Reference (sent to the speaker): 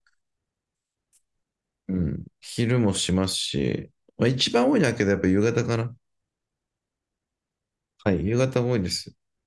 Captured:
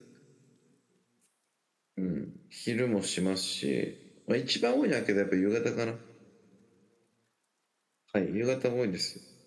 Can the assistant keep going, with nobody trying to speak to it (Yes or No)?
Yes